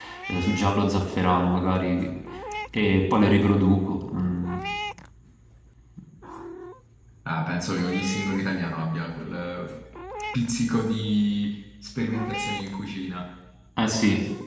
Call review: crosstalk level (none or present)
none